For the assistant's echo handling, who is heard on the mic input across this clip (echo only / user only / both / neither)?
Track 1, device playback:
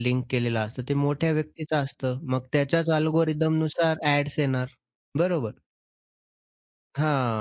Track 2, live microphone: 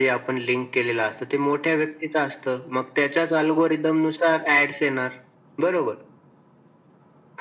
echo only